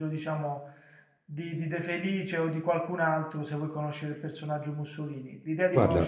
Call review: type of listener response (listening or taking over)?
listening